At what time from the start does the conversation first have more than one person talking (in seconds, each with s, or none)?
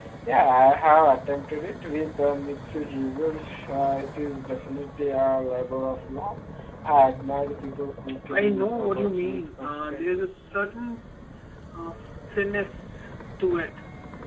8.3 s